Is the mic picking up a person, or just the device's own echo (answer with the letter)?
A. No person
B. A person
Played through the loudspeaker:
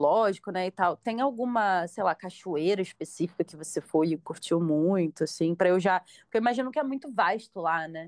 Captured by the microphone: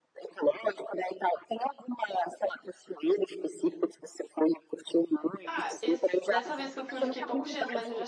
B